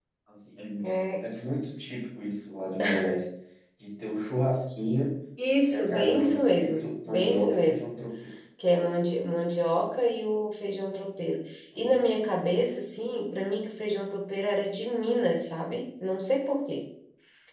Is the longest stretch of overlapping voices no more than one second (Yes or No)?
No